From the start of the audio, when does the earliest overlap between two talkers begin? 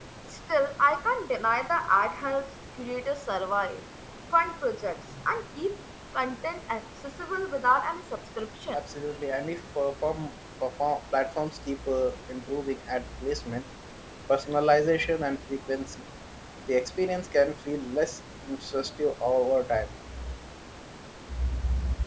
none

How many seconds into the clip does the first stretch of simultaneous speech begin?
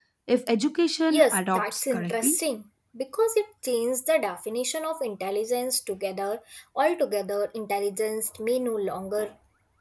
1.1 s

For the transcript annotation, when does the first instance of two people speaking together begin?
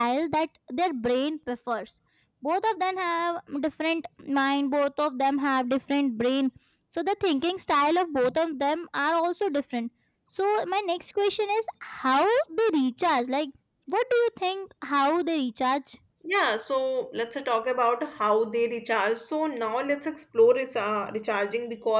none

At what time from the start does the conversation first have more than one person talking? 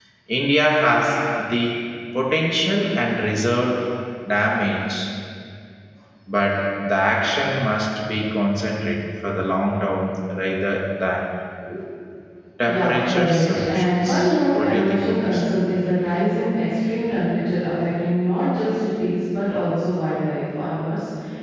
12.6 s

